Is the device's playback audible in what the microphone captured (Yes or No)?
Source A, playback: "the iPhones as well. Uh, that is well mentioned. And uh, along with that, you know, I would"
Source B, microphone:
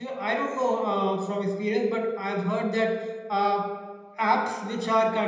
No